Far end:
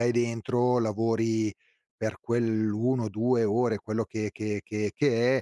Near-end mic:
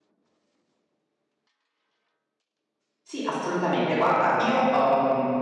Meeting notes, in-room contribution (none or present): present